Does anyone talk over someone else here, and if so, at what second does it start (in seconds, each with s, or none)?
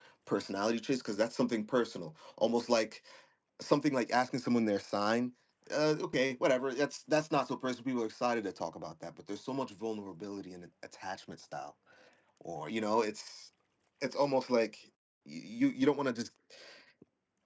none